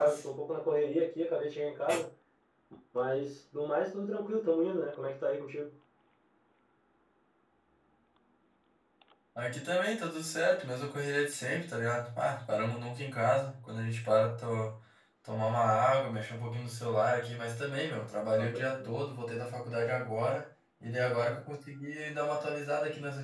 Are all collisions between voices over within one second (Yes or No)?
Yes